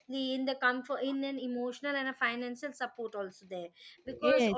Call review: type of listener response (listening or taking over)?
listening